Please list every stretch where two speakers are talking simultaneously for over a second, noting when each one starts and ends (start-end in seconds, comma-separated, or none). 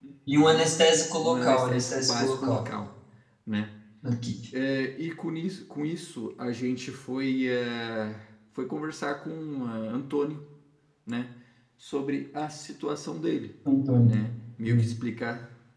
1.2-2.6